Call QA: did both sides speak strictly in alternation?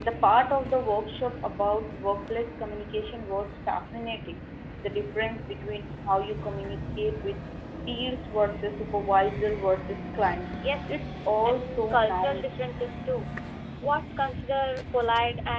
No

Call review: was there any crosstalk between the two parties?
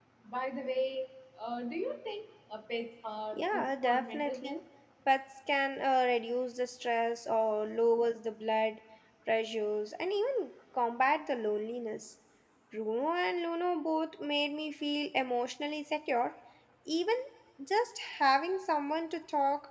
Yes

